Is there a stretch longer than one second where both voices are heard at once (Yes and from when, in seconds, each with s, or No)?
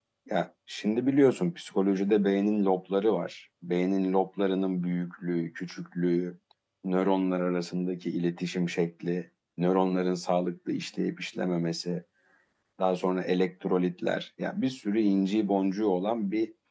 No